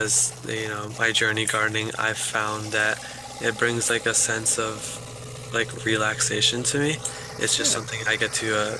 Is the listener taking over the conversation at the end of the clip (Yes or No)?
No